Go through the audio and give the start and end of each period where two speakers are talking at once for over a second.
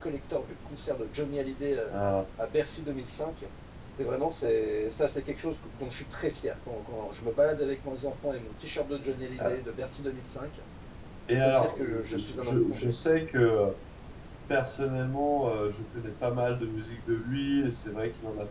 11.3-12.9

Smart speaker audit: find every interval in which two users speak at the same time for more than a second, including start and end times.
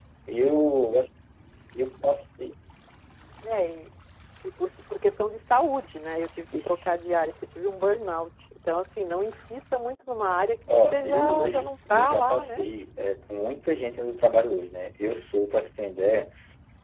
10.7-12.6

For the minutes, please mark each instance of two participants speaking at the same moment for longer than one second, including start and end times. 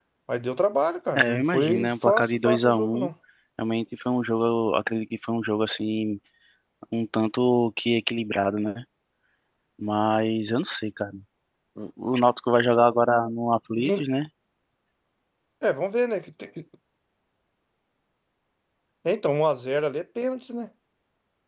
1.1-3.1

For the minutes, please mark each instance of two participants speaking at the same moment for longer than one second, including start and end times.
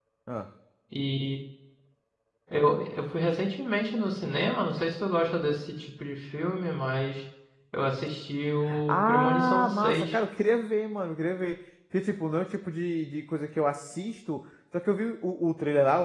8.9-10.2

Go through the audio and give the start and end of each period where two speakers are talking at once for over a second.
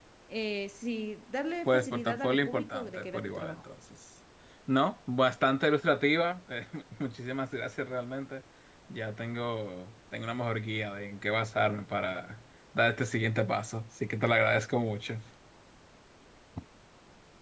1.7-3.6

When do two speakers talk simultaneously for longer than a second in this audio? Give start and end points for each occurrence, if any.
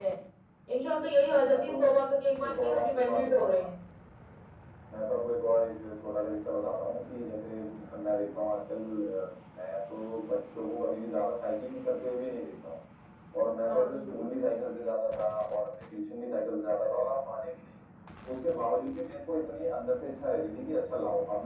2.5-3.7

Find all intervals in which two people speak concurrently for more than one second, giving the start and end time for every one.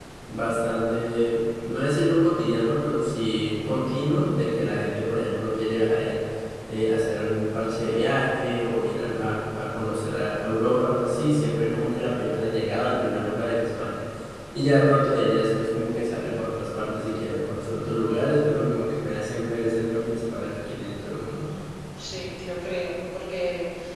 none

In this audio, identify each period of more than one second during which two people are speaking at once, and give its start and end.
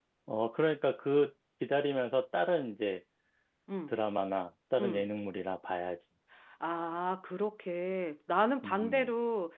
none

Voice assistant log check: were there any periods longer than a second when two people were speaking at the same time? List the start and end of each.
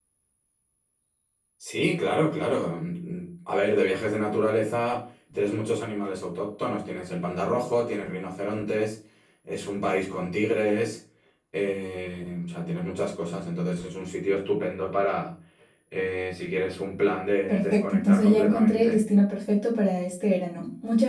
17.5-19.0

